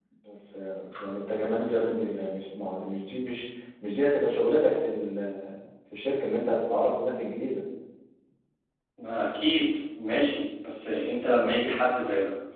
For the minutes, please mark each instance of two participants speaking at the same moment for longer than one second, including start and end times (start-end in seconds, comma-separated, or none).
none